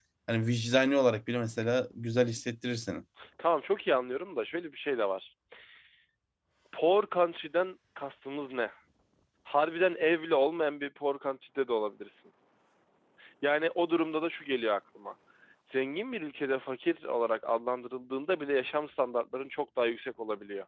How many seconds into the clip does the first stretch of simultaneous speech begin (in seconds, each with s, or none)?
none